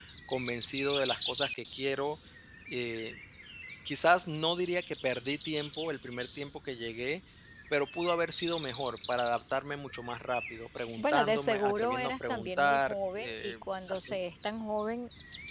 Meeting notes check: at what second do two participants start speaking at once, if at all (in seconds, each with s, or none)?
11.0 s